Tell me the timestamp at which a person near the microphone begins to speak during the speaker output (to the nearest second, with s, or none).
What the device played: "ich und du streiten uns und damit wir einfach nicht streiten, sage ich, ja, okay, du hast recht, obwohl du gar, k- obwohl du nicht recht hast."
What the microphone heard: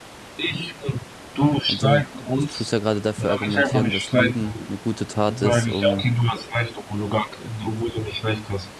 2 s